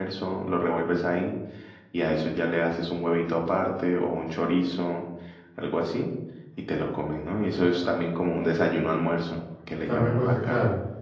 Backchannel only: No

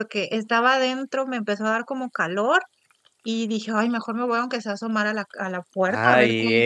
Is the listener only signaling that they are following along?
No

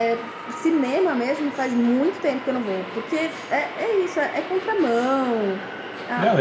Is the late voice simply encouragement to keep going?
No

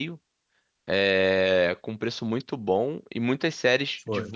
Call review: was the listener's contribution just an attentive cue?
Yes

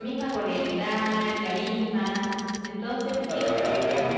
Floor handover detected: Yes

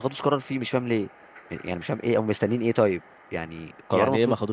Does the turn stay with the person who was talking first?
No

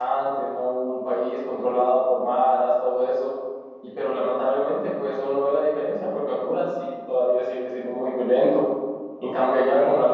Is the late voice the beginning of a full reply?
No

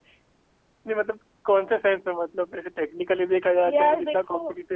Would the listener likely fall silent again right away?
No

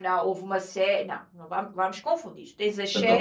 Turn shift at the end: No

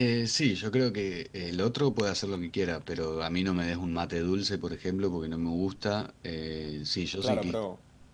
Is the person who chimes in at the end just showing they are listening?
No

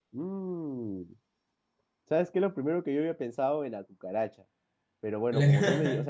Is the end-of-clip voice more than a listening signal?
No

